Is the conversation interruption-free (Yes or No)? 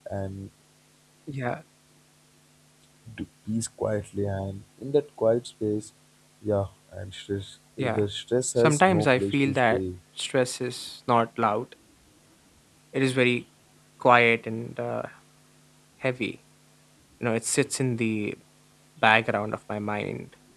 No